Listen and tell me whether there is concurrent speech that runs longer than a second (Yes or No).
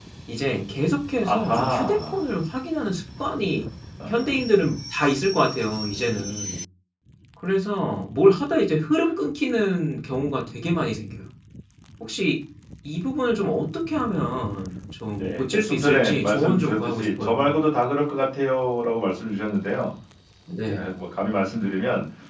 Yes